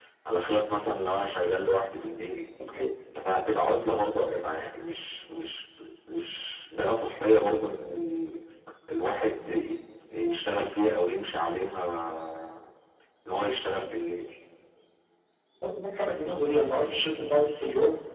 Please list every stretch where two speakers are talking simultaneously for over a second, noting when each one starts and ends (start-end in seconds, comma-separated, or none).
none